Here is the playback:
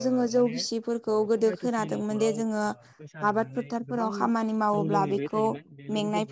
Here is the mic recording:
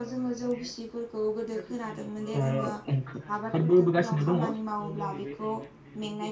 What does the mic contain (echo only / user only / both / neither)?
both